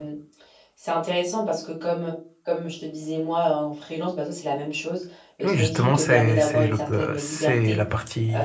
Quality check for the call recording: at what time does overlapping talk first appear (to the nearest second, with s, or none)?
5 s